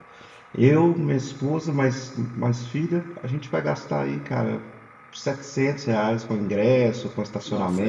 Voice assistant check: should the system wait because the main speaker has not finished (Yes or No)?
Yes